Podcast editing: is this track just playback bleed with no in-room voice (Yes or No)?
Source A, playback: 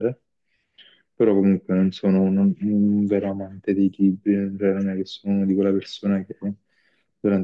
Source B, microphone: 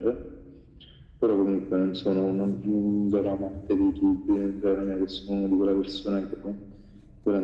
Yes